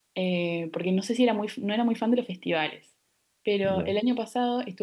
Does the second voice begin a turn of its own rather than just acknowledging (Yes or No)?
No